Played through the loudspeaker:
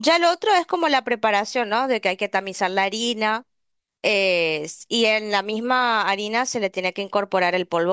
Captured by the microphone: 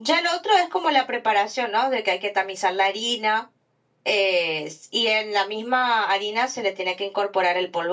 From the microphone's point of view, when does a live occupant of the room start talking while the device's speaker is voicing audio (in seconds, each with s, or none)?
none